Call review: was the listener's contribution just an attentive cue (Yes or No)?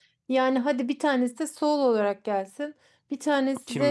Yes